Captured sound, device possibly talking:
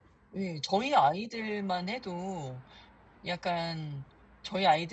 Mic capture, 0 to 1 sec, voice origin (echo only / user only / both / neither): user only